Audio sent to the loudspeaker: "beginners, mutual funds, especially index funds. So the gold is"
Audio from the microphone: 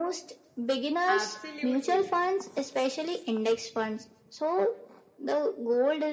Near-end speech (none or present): present